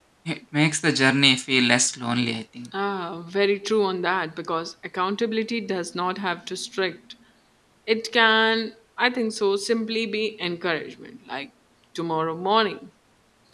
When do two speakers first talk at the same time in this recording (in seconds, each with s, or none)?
none